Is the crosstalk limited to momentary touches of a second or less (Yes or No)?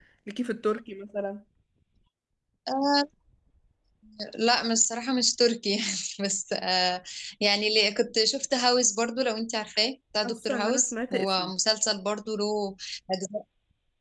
No